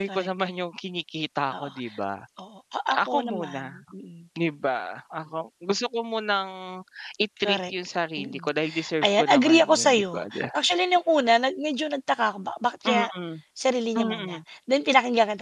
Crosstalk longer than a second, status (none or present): present